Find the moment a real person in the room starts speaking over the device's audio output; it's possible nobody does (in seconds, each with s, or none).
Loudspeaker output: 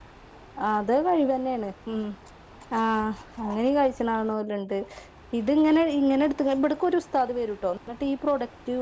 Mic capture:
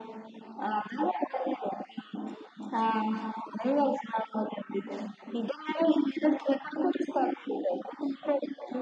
none